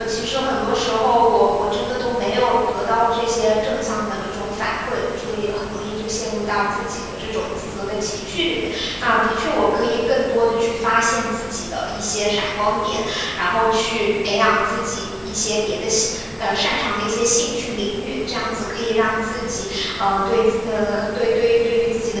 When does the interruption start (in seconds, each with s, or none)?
none